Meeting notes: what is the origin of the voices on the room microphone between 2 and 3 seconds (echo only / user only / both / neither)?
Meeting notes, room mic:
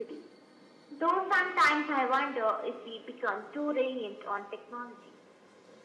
echo only